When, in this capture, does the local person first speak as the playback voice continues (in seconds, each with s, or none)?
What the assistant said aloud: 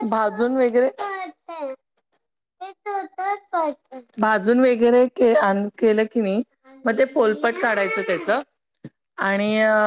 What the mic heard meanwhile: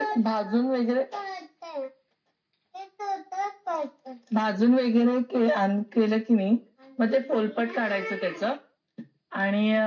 none